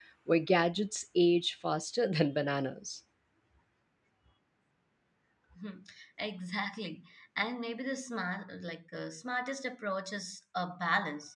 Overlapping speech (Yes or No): No